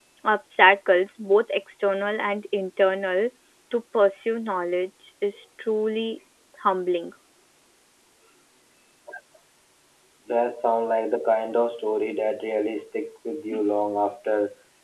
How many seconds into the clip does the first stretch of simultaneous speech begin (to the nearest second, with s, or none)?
none